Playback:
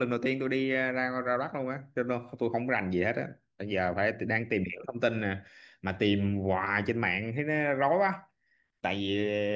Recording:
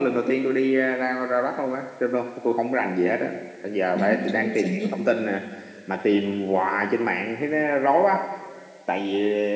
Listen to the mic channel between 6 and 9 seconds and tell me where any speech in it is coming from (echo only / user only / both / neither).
echo only